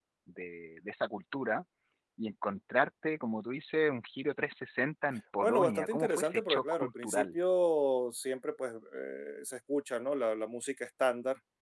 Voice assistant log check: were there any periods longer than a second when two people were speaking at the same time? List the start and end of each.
5.4-7.2

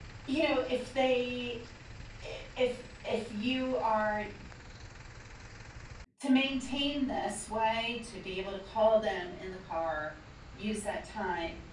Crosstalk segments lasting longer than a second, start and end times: none

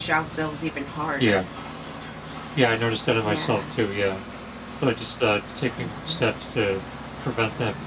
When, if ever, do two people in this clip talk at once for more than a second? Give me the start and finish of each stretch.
none

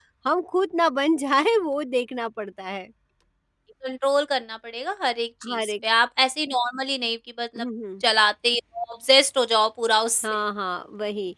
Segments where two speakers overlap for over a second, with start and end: none

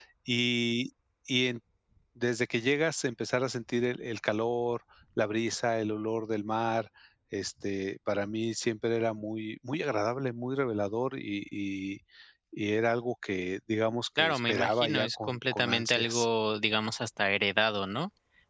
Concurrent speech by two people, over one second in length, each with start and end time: 14.2-16.3

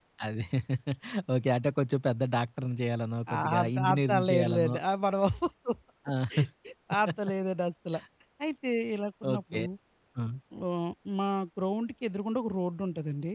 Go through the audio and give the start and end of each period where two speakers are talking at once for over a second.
3.4-4.7

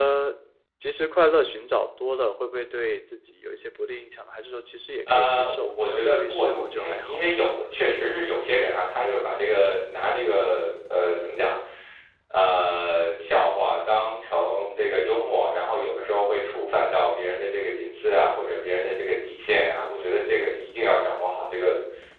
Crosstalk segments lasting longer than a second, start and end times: 5.1-7.2

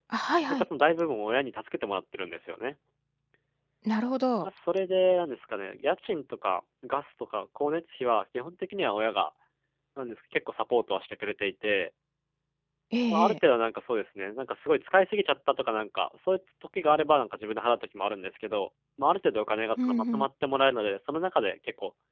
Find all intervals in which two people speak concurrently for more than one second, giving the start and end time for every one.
none

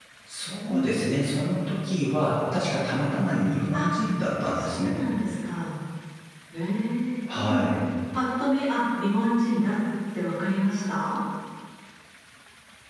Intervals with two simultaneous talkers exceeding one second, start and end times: none

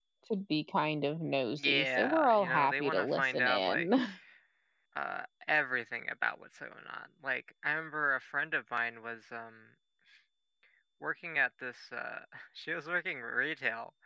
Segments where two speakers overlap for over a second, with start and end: 1.6-3.9

